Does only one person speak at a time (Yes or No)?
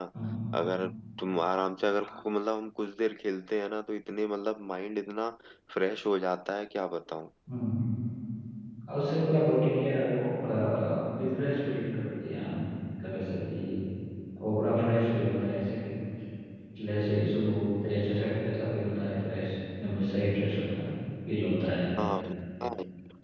Yes